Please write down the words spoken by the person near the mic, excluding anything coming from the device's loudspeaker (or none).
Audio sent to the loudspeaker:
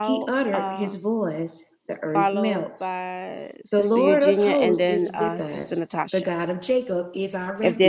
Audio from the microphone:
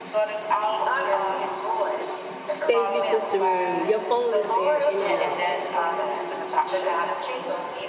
Thank you, Sister Miriam. Your phone is going in and out.